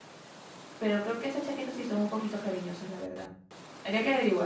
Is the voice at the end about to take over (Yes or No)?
Yes